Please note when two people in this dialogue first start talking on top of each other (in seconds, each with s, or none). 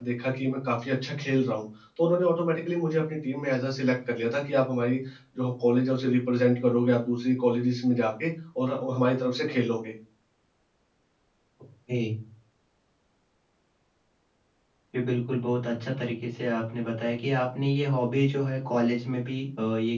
none